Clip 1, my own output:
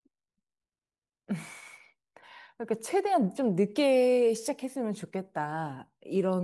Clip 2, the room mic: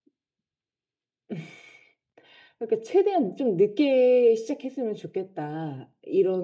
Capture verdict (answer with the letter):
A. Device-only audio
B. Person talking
A